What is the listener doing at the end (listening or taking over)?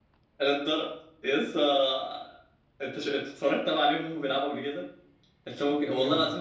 listening